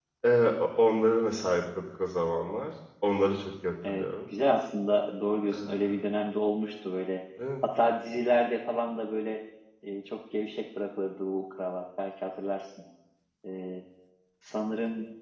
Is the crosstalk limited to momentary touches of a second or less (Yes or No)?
Yes